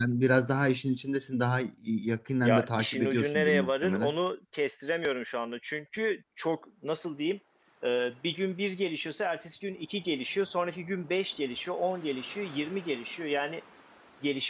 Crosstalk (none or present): present